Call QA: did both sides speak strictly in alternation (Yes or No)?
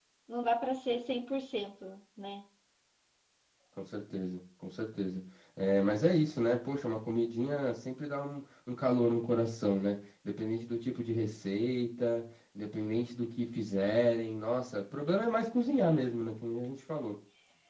Yes